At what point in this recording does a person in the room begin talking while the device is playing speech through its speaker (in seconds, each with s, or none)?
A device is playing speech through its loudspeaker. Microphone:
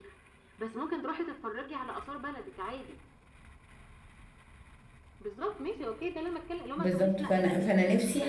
6.7 s